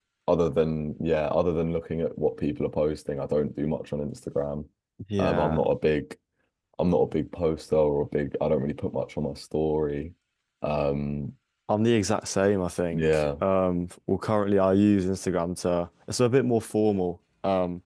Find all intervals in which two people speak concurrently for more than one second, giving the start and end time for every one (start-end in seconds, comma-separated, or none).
none